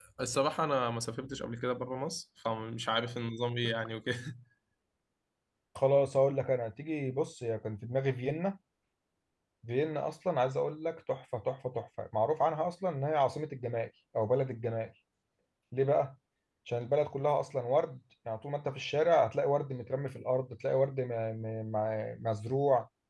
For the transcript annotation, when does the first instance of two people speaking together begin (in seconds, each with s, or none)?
none